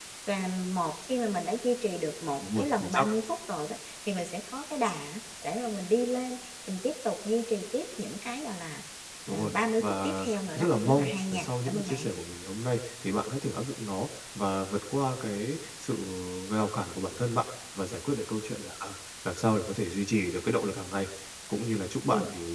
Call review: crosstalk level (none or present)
present